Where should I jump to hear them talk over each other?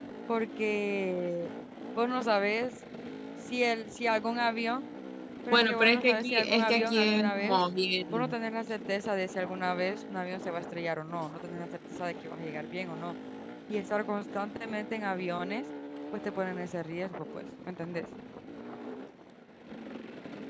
5.5 s

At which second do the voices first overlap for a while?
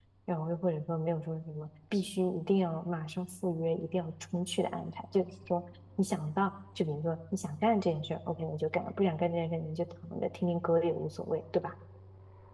none

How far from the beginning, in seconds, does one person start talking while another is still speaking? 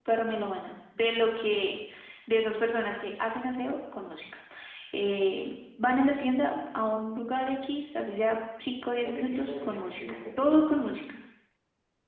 9.0 s

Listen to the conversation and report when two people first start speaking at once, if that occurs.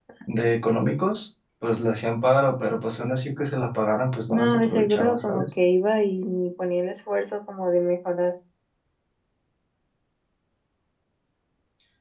4.3 s

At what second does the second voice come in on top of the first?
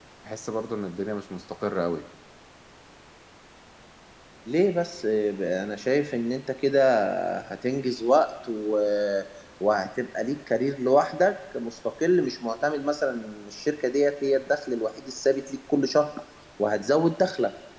none

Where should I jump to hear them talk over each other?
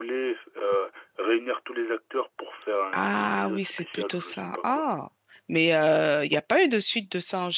2.9 s

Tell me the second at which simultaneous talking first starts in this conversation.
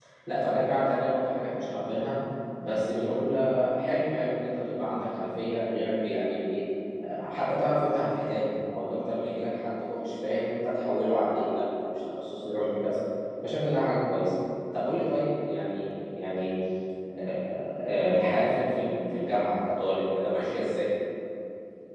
none

